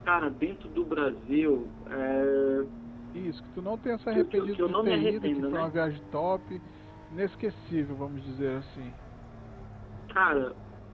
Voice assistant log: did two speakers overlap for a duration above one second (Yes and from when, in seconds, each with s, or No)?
Yes, from 4.1 s